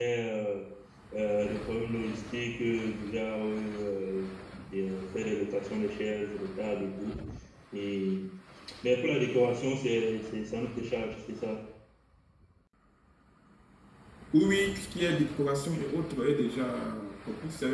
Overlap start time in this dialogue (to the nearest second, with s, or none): none